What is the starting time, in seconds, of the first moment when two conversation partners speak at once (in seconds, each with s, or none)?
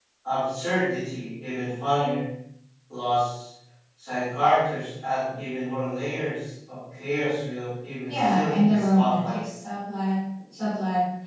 8.1 s